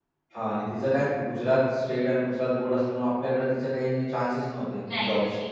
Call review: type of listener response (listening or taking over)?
taking over